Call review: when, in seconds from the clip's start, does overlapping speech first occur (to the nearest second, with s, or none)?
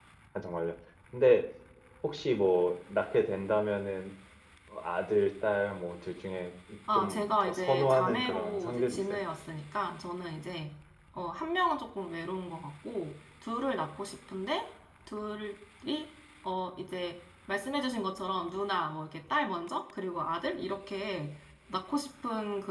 7 s